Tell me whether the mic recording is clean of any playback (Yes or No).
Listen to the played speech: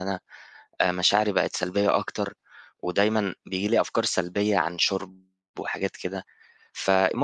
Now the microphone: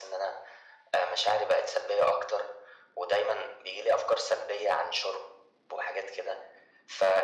No